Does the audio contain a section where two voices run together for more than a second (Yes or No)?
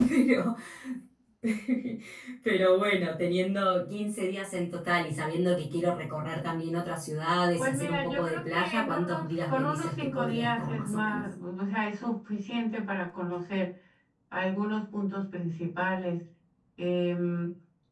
Yes